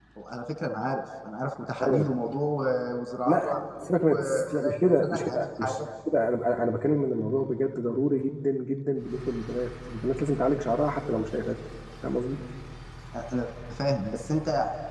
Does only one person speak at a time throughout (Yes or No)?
No